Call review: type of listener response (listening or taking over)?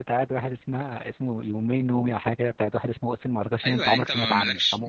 taking over